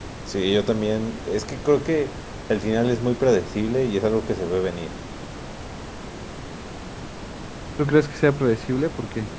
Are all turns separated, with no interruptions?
Yes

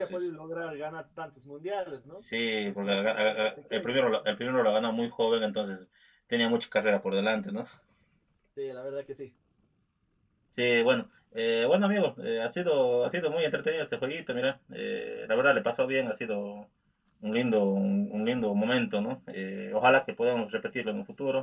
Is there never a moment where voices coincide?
No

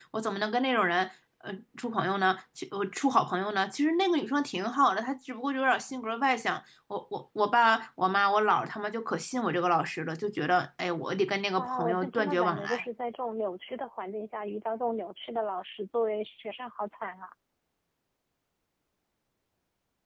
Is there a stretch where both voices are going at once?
Yes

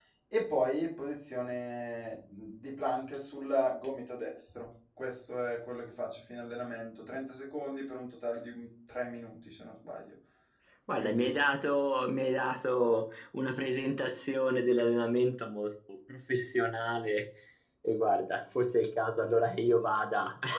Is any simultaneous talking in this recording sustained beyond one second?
No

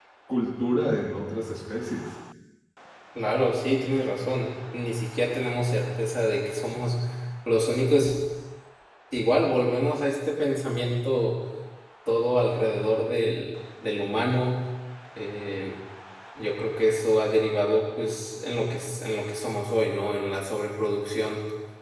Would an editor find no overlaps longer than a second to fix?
Yes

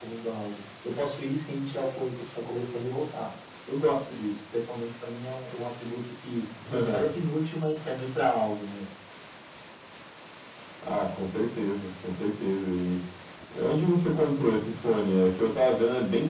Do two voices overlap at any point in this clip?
No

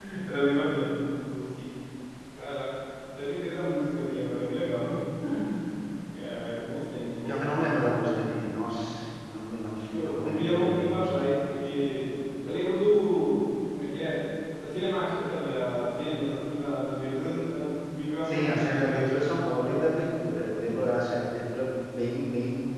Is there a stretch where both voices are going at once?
Yes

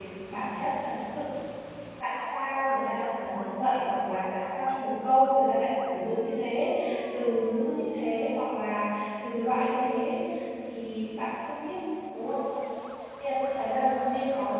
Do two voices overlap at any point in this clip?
No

